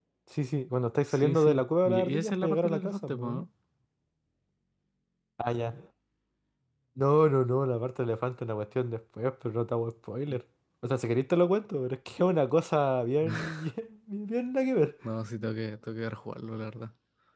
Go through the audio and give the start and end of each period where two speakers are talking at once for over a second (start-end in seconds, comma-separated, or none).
1.1-3.4